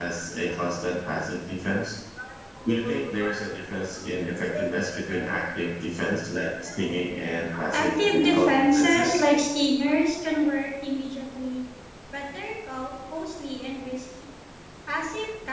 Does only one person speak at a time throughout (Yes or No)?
No